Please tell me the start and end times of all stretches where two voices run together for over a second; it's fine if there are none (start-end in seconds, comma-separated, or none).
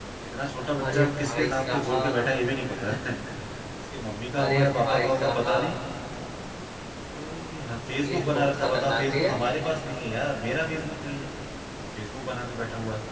0.8-2.3, 4.4-5.7, 8.0-9.4